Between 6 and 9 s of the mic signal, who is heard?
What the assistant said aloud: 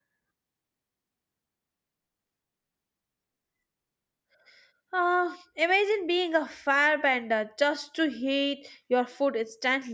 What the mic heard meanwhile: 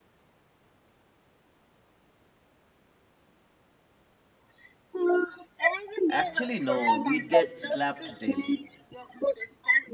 both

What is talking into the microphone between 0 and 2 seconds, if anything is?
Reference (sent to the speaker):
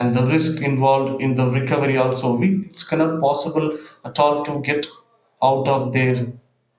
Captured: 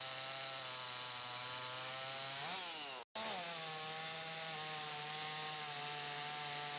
neither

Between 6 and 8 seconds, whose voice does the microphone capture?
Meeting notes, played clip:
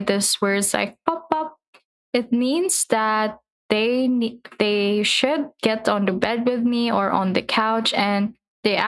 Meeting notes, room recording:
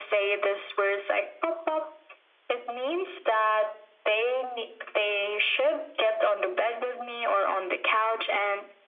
echo only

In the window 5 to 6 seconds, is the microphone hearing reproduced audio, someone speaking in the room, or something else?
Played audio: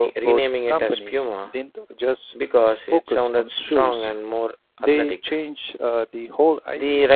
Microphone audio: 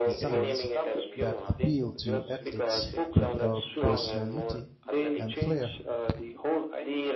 both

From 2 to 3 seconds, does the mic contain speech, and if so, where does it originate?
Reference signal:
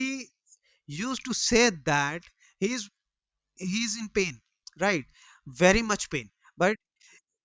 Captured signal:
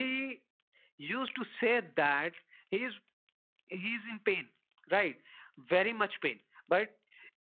echo only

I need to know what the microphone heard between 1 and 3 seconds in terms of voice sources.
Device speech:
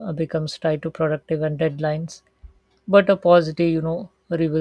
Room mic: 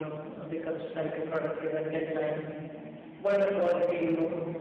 echo only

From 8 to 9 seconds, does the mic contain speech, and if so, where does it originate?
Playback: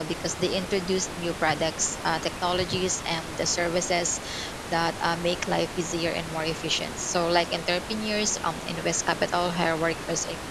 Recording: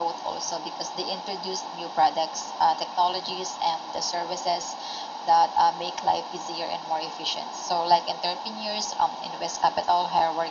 echo only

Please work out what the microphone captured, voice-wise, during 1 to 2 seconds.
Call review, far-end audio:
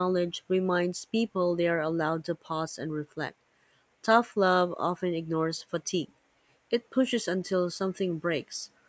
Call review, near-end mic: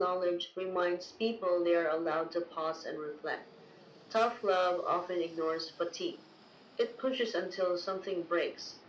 echo only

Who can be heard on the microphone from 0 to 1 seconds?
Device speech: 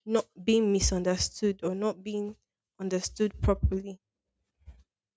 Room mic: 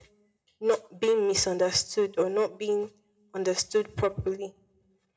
echo only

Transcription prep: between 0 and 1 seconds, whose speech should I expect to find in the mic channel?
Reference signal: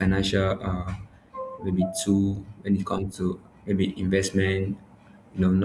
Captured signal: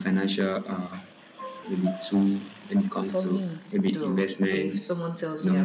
echo only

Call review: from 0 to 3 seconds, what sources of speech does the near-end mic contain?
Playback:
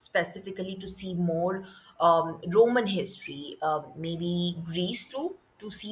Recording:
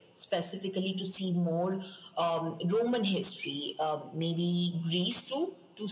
echo only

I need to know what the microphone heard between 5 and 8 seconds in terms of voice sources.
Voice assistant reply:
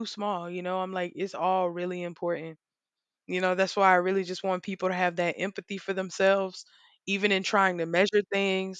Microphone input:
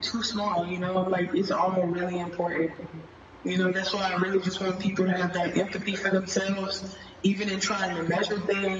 echo only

